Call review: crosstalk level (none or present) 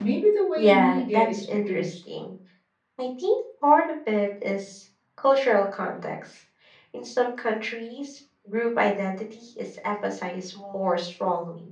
present